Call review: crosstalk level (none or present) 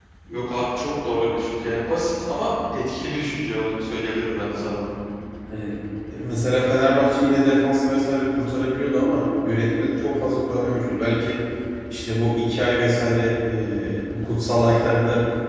none